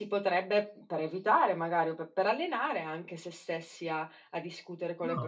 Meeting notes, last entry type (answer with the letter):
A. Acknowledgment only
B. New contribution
B